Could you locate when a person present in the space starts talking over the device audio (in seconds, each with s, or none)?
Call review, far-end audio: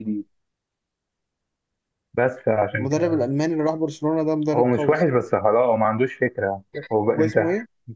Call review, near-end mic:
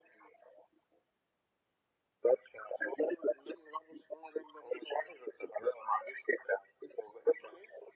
none